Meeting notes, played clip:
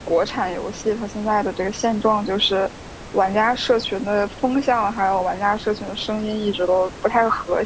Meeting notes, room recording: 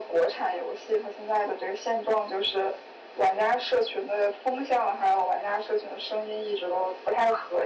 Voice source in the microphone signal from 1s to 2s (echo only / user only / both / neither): echo only